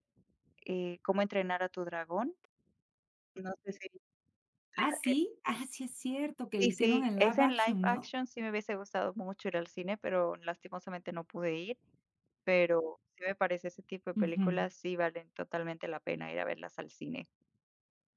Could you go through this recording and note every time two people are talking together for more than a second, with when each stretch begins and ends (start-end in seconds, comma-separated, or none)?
6.6-8.0